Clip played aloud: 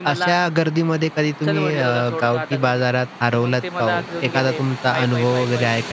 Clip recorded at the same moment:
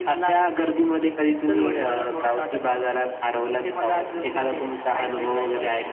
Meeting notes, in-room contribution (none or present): none